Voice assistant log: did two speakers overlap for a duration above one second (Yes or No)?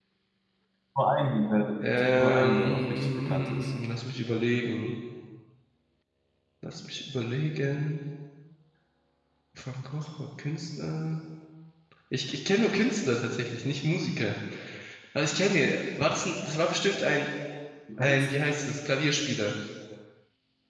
Yes